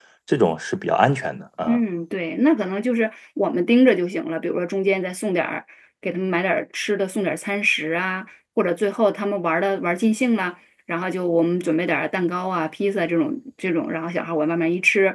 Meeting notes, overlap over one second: none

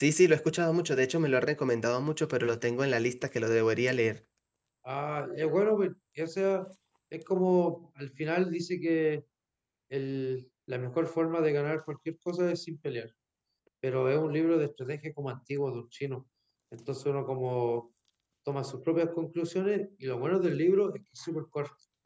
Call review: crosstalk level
none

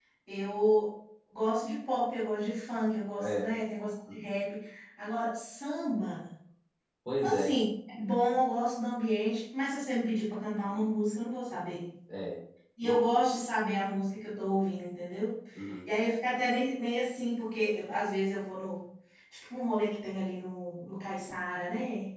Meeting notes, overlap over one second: none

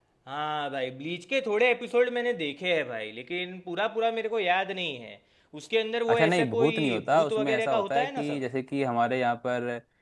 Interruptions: present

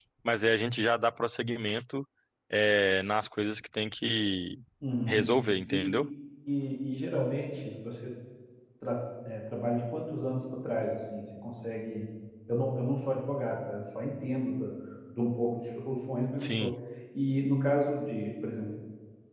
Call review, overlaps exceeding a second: none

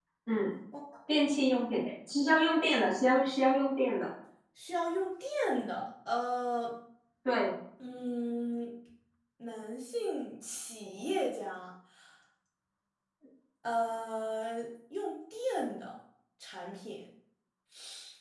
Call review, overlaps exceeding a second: none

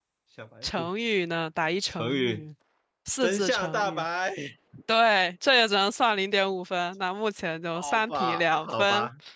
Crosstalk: present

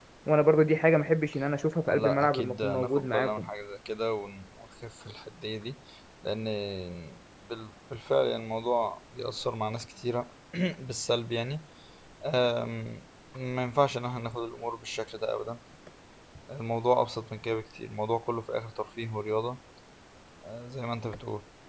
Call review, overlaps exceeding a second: present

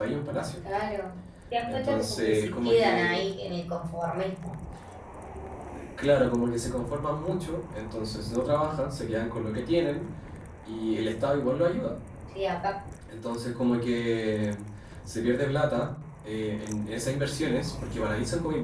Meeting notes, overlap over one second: present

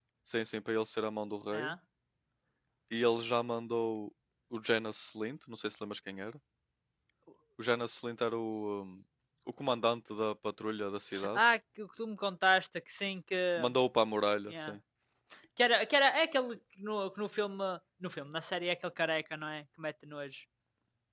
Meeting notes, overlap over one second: none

